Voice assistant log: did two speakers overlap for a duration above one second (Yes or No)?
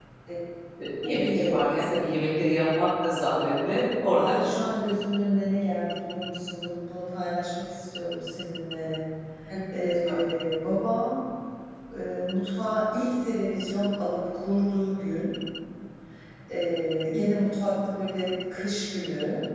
No